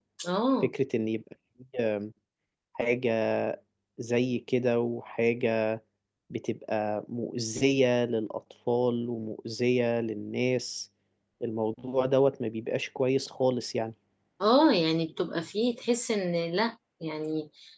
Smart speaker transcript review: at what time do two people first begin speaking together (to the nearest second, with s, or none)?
none